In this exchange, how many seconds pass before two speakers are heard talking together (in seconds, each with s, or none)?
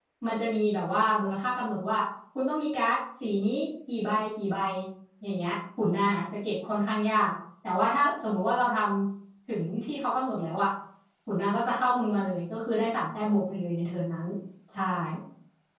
none